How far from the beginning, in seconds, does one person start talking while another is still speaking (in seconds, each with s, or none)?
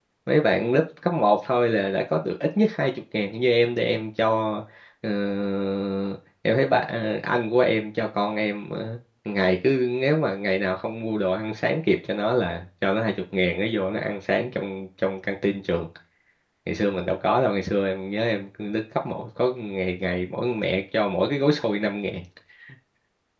none